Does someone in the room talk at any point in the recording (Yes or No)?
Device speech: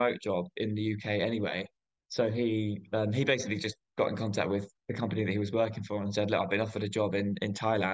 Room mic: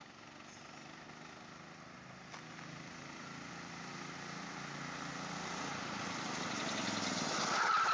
No